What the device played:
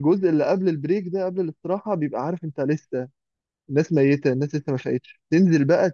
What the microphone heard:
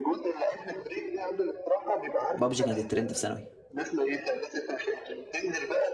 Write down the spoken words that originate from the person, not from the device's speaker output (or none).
بابجي كانت الترند في ثانوي